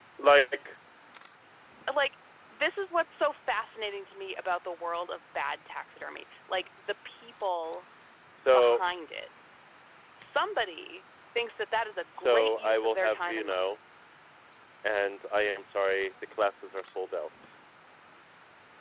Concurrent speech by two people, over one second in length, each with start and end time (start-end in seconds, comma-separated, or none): 12.2-13.7